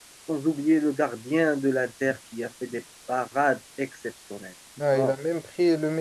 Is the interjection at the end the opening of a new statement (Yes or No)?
Yes